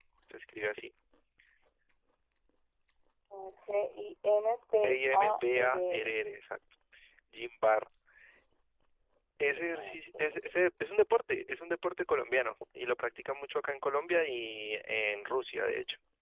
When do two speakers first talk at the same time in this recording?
4.8 s

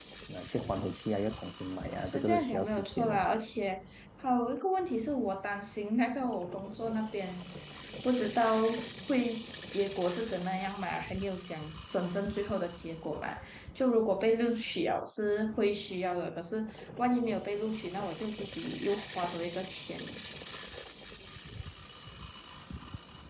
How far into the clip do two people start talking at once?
2.0 s

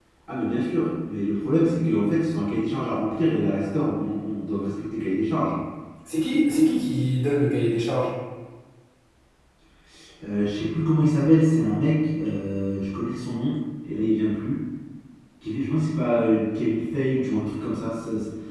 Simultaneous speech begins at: none

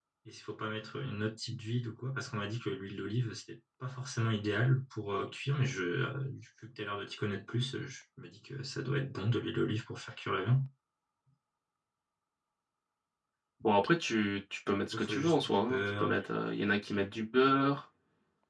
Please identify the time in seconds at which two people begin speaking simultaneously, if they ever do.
14.9 s

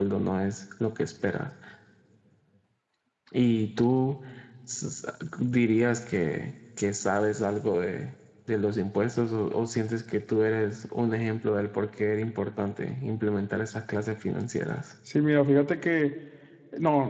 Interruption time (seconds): none

